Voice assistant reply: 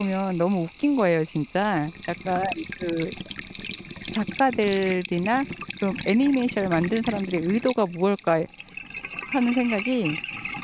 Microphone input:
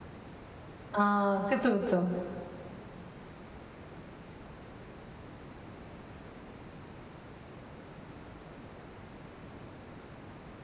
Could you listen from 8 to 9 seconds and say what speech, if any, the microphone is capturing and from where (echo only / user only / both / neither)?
neither